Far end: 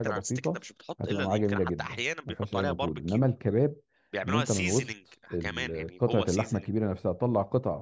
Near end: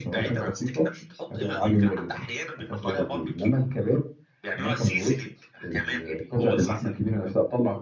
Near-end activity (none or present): none